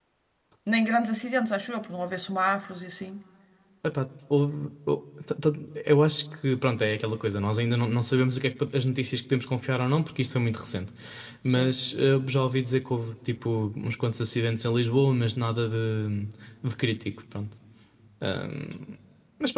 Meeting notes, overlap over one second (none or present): none